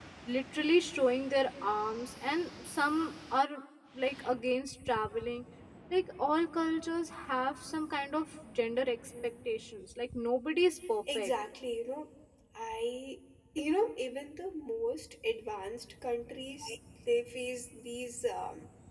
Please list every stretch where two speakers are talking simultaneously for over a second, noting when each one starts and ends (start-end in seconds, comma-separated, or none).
none